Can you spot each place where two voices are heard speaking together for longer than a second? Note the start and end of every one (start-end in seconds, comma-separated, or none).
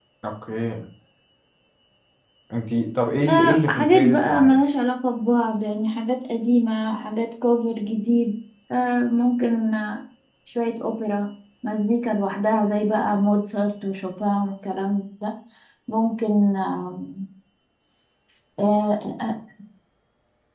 3.3-4.6